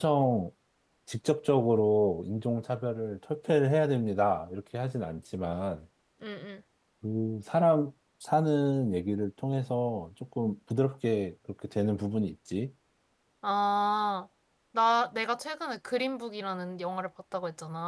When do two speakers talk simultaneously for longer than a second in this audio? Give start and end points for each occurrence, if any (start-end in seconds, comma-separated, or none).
none